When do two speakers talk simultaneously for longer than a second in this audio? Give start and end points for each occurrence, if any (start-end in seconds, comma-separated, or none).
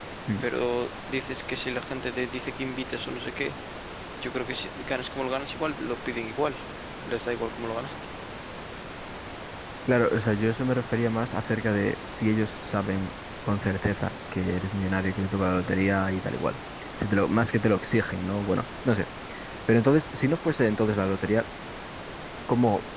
none